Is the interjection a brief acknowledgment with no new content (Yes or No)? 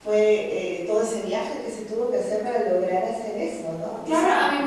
No